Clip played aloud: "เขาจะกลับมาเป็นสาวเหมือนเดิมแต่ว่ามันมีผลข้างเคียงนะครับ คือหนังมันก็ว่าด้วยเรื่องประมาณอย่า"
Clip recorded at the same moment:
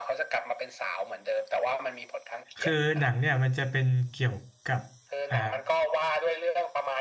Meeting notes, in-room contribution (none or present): present